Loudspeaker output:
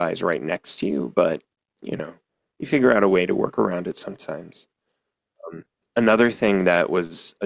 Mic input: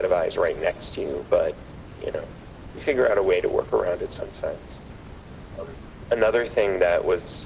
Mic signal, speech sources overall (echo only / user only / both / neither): echo only